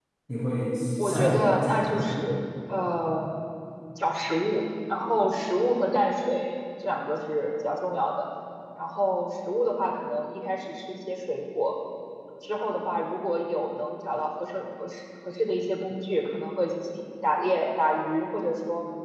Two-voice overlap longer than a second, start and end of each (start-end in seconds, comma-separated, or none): 1.0-2.2